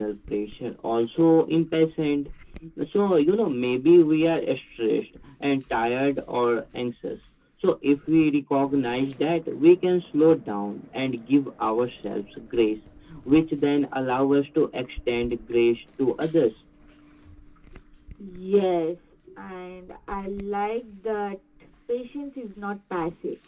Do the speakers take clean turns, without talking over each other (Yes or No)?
Yes